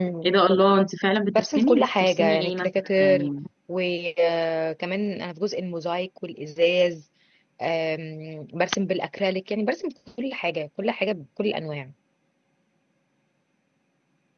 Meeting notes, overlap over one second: present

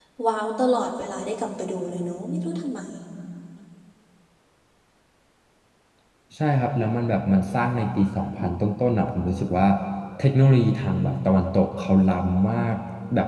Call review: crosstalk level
none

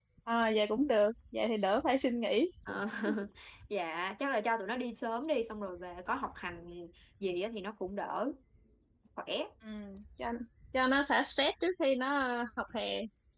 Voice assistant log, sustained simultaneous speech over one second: none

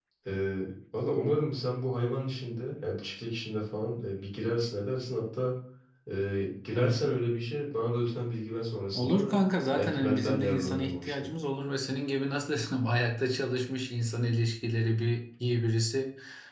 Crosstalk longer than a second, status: present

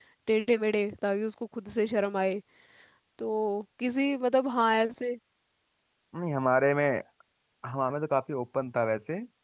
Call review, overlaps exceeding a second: none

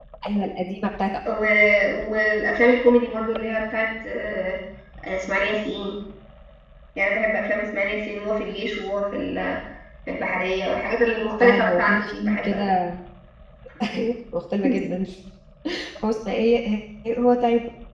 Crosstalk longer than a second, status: present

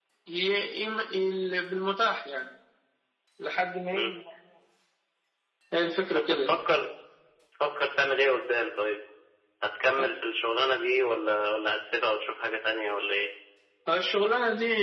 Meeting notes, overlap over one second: none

